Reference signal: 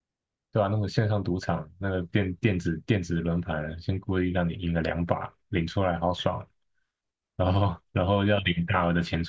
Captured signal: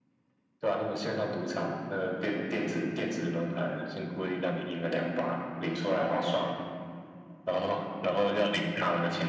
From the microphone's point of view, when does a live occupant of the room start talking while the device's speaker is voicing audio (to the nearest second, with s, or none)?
none